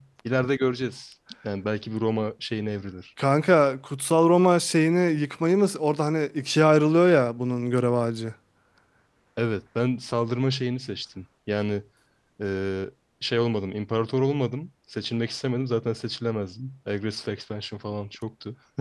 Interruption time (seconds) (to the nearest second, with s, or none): none